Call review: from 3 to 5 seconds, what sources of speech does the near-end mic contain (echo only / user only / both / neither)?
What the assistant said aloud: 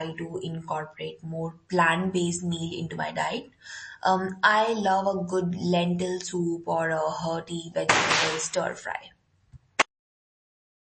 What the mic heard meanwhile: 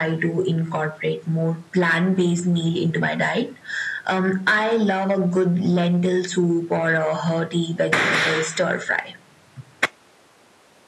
echo only